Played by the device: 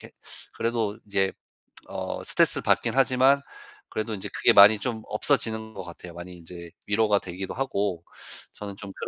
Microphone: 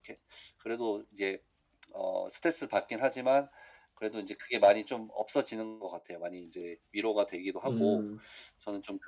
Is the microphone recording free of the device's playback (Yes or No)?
No